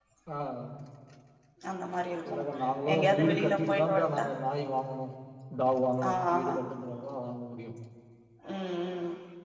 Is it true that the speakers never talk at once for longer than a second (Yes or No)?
No